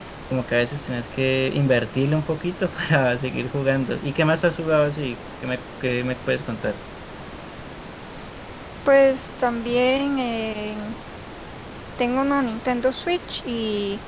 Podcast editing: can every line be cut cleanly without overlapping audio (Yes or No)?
Yes